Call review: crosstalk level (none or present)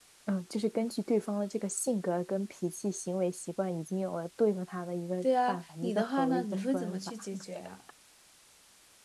present